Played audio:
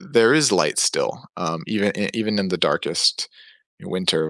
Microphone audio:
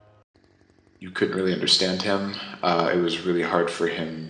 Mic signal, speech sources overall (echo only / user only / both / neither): user only